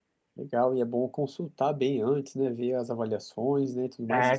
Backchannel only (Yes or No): No